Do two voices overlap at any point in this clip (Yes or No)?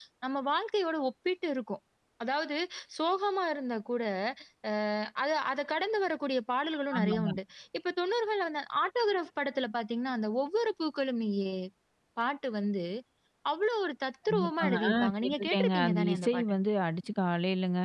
Yes